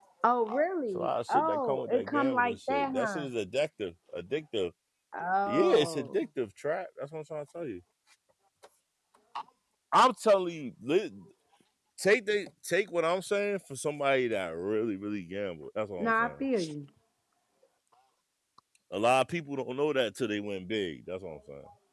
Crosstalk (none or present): present